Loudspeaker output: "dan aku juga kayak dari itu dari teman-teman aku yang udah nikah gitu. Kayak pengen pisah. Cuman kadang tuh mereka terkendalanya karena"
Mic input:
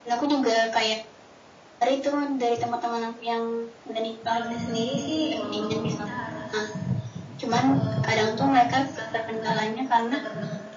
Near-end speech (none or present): present